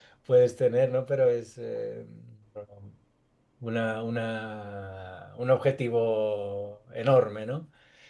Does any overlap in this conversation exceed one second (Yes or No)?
No